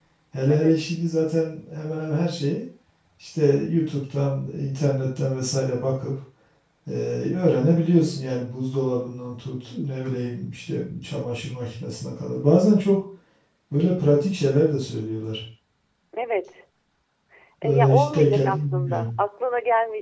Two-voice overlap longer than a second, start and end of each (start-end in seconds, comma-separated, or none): 17.6-19.1